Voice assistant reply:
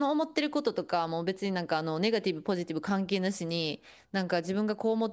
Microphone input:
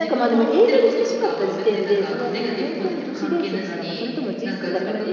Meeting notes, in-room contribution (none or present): present